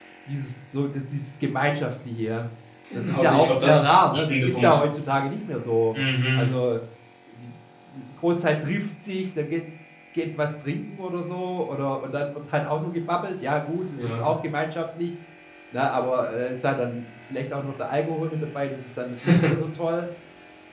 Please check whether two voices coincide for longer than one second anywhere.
Yes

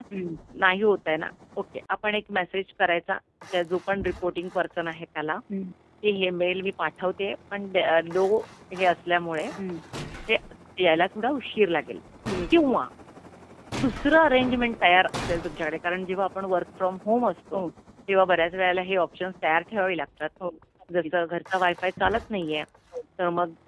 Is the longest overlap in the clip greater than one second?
No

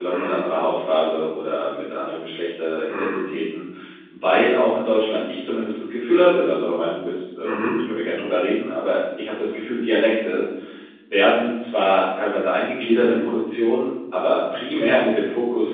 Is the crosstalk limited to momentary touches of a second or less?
Yes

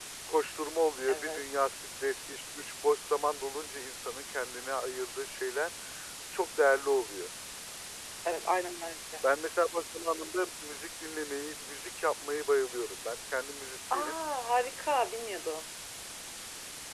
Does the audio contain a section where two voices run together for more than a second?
No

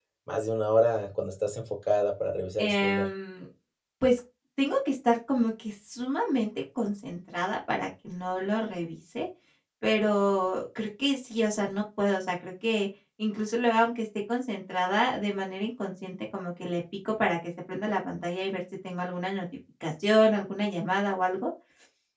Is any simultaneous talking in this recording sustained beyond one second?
No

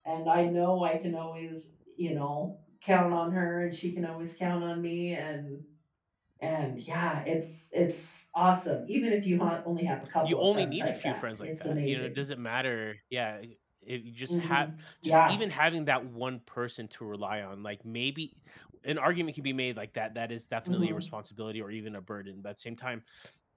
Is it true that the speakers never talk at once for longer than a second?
No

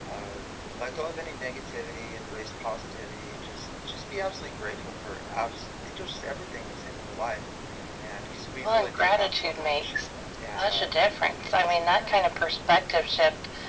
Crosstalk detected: Yes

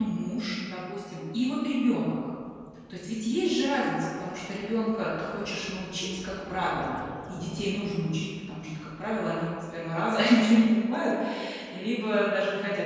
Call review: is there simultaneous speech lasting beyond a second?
No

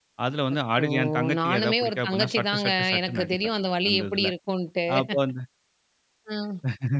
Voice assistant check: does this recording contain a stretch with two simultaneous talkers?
Yes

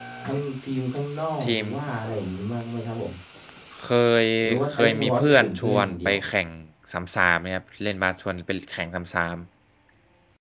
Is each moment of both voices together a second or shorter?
No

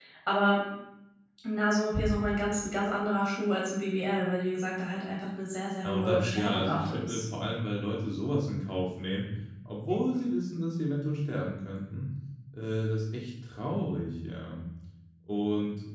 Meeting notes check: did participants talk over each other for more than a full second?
Yes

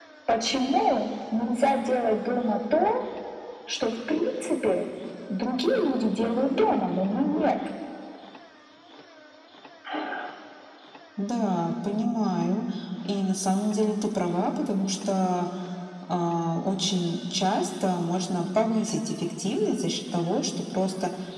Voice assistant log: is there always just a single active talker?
Yes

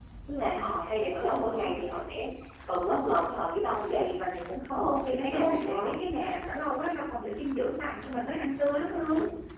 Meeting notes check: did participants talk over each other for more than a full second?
Yes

